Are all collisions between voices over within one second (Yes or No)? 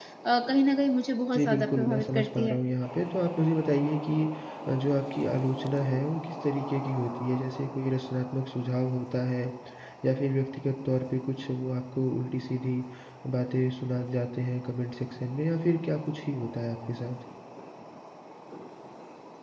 No